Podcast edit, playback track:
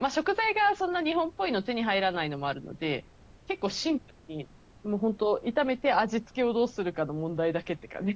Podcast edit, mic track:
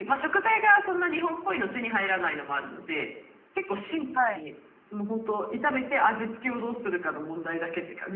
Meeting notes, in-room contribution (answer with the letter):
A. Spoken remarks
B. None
A